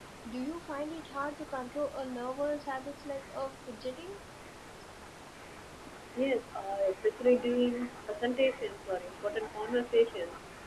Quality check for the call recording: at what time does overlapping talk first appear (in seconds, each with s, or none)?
none